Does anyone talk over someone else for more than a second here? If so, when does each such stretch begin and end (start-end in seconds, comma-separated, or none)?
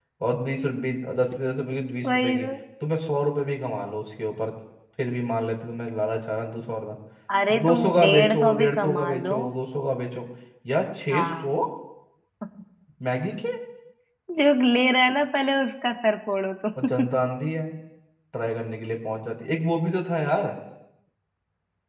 7.6-9.4